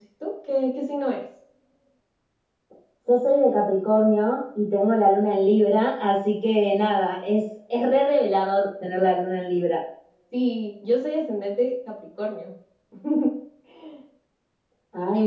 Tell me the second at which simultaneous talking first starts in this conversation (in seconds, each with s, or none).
none